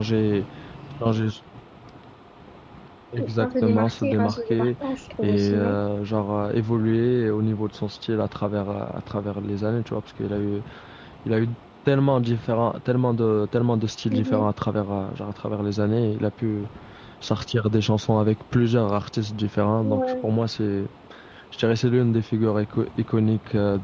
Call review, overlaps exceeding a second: present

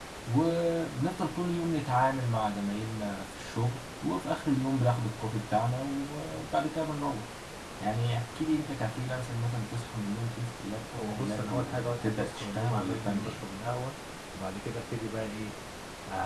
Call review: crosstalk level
present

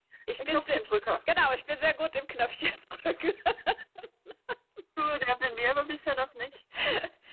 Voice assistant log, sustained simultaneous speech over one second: none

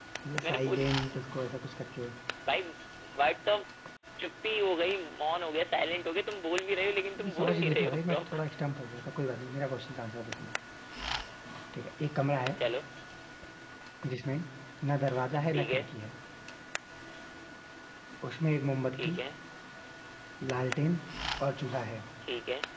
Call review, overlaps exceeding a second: present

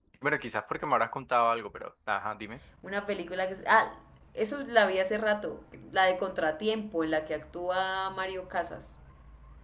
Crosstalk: none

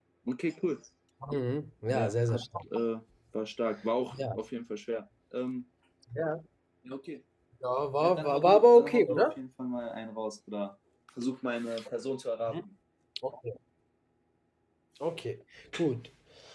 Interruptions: present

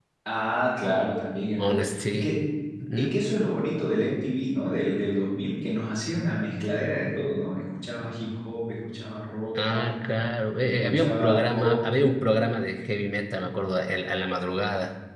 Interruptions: present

